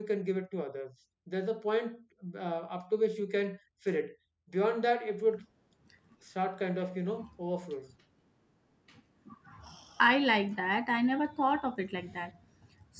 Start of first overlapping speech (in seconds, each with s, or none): none